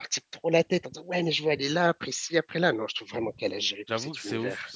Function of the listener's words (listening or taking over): taking over